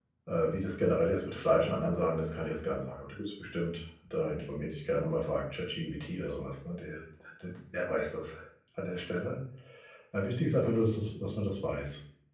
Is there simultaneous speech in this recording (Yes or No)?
No